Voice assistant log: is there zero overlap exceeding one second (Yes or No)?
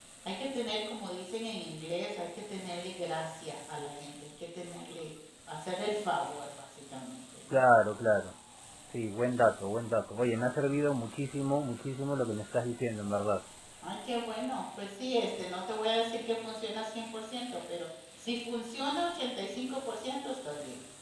Yes